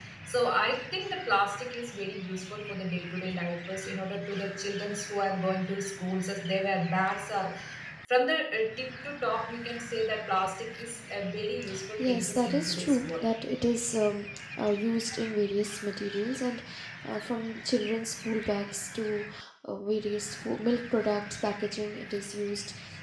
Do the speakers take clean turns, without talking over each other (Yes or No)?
No